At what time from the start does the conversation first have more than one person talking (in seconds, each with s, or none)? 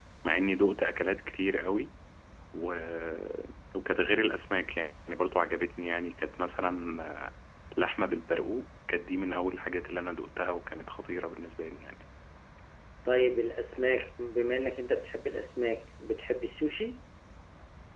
none